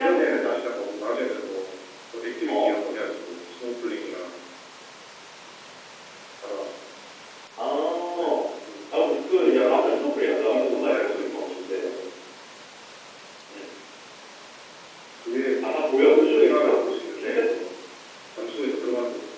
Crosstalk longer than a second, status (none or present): present